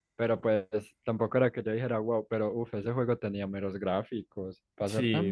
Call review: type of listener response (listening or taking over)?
taking over